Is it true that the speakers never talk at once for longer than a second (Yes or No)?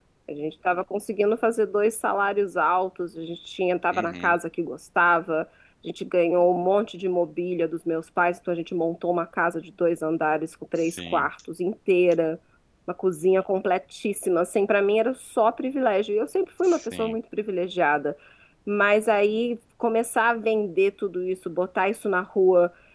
Yes